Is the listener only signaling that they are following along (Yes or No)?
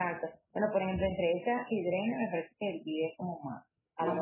Yes